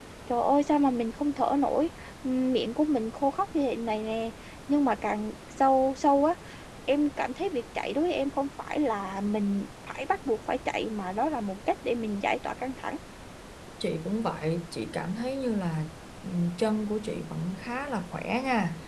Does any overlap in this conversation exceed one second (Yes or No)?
No